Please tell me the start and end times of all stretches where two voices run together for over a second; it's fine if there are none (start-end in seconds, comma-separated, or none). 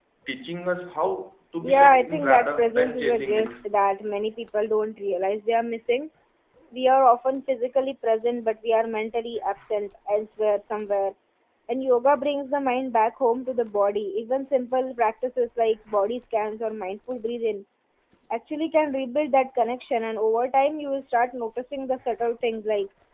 1.6-3.5